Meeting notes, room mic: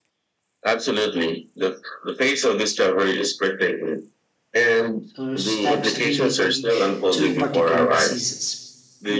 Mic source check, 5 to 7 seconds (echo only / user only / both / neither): both